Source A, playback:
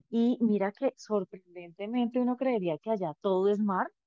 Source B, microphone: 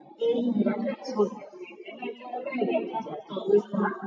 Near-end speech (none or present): none